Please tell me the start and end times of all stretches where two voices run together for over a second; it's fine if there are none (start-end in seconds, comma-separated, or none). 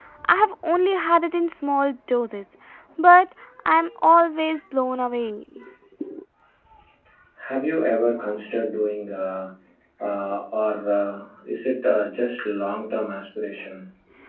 none